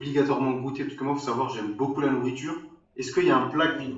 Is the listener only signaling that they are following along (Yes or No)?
Yes